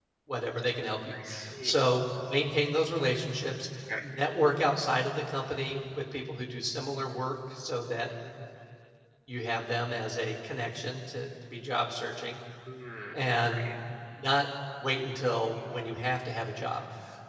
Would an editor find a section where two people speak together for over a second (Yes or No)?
No